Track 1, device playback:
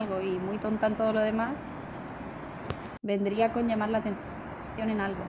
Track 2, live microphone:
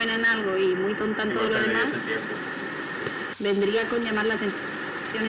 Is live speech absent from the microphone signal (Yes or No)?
No